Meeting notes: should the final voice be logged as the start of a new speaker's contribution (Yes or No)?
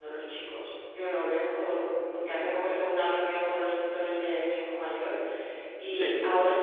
No